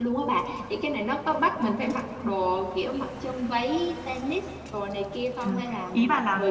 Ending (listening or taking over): taking over